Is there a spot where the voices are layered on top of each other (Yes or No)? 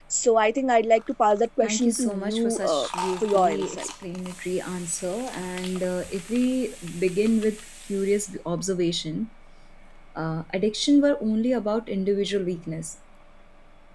Yes